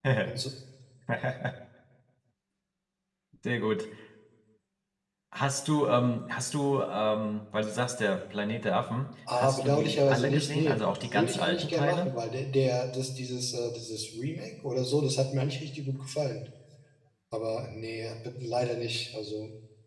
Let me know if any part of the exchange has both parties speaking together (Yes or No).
Yes